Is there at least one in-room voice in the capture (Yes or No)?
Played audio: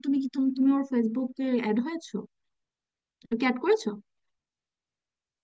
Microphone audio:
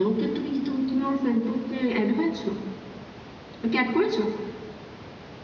No